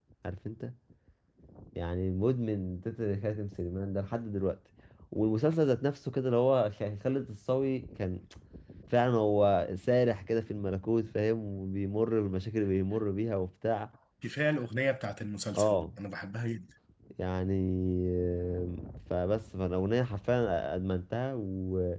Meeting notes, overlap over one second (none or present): none